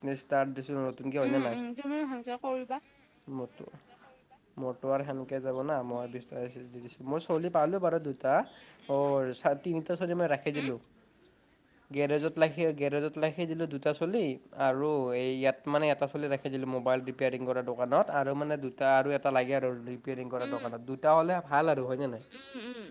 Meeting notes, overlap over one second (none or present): none